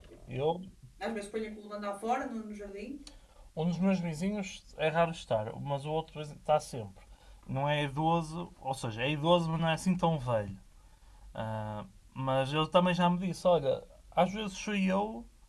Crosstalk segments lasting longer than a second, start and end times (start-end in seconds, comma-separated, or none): none